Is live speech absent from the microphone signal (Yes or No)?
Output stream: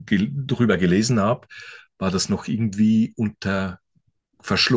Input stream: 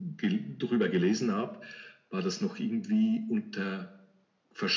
Yes